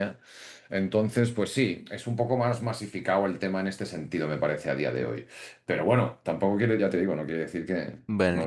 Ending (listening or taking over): taking over